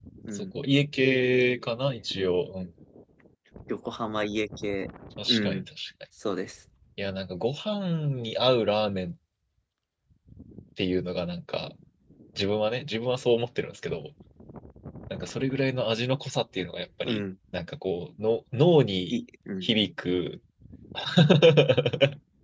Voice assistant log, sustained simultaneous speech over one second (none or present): none